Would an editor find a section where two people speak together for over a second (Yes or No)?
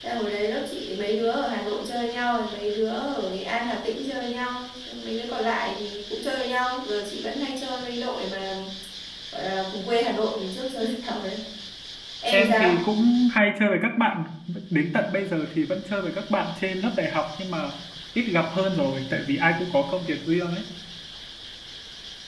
No